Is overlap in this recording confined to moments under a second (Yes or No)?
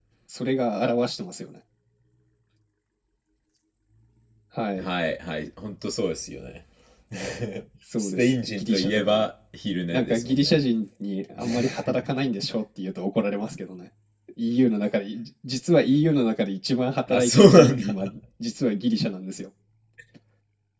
No